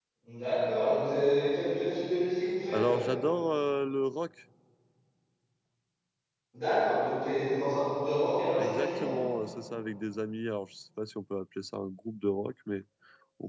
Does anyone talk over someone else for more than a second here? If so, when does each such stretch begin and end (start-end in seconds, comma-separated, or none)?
none